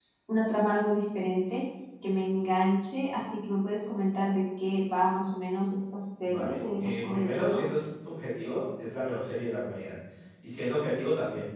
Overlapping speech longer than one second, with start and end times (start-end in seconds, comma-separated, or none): 6.2-7.6